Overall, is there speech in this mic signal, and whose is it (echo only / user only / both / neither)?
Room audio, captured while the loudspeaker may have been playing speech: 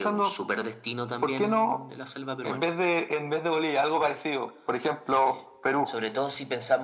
echo only